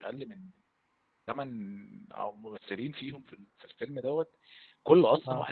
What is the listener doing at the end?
listening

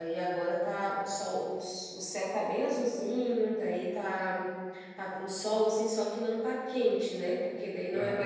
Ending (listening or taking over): taking over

